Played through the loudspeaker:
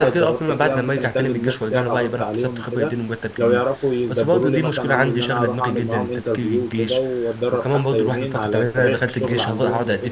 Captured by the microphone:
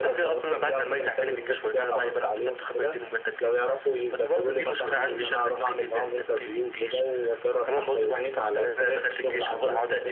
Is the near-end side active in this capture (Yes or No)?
No